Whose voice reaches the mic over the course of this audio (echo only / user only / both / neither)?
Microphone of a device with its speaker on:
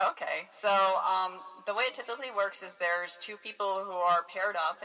echo only